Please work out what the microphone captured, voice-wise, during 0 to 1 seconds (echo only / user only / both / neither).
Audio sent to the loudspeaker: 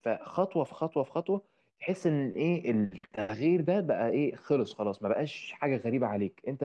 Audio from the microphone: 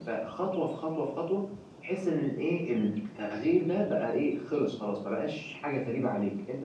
echo only